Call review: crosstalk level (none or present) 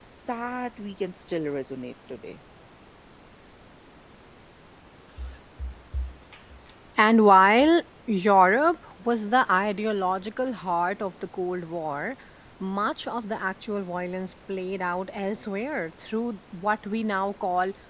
none